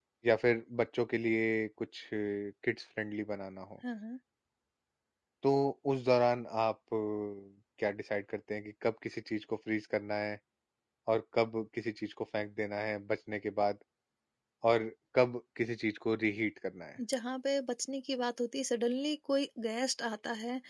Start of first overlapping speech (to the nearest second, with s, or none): none